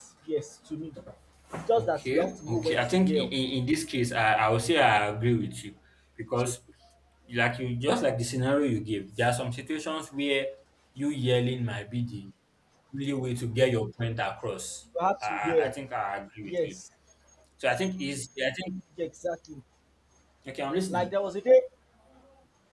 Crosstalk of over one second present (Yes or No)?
Yes